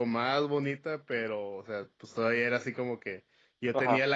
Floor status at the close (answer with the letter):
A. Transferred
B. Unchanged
B